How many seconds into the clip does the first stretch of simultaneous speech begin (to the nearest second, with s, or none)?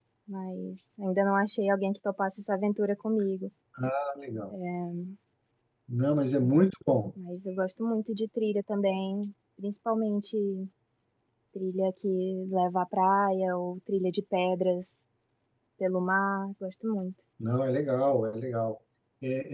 none